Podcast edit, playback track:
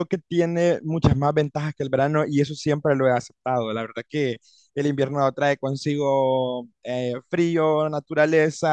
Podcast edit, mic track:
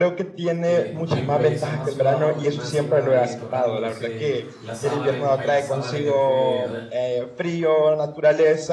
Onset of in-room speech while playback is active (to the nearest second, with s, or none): 1 s